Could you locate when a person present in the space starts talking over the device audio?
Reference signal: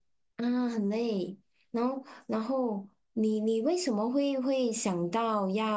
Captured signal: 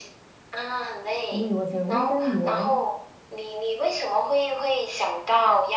1 s

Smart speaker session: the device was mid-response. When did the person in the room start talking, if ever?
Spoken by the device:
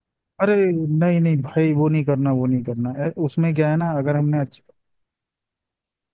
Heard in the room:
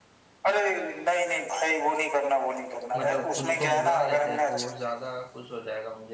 3 s

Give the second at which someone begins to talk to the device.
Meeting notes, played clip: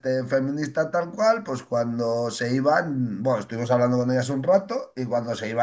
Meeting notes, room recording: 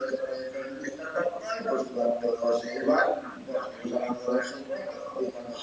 none

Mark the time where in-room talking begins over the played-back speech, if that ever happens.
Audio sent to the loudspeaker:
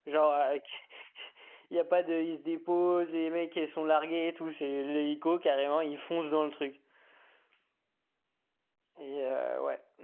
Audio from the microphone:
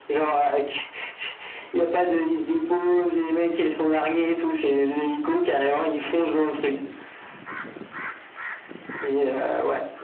none

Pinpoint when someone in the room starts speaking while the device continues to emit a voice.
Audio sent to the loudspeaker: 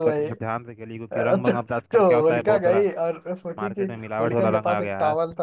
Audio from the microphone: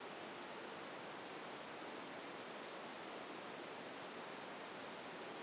none

